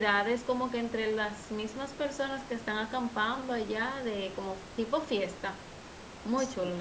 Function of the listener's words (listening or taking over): taking over